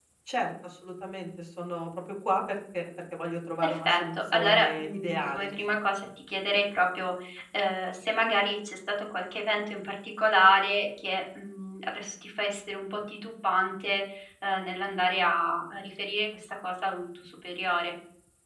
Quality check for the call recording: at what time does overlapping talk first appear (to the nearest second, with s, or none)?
4 s